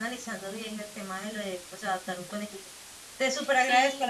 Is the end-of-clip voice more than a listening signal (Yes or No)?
No